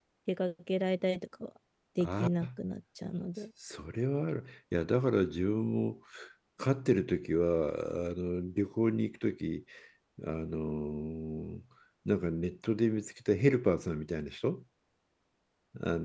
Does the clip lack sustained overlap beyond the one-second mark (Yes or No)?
Yes